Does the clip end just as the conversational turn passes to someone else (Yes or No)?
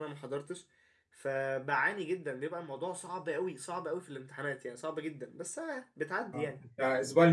Yes